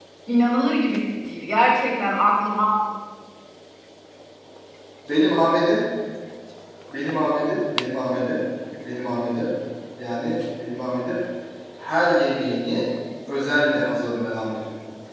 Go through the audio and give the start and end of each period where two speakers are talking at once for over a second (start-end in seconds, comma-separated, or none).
none